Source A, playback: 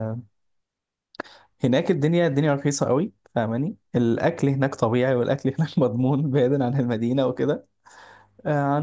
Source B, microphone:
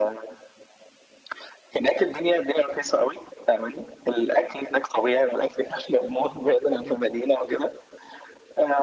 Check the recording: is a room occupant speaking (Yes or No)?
No